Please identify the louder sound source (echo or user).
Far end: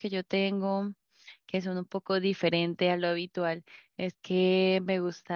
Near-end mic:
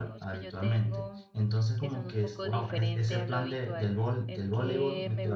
user